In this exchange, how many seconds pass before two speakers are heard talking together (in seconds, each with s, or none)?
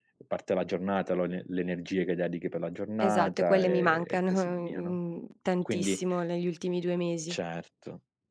3.0 s